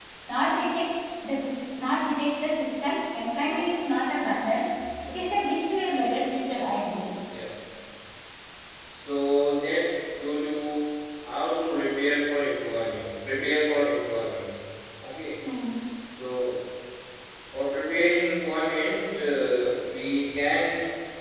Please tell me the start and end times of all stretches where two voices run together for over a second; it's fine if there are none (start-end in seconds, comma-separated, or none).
none